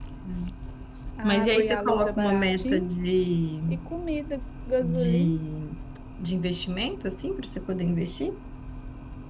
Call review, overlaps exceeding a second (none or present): present